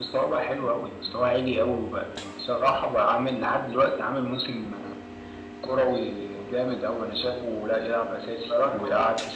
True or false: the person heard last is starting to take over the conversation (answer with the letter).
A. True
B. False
B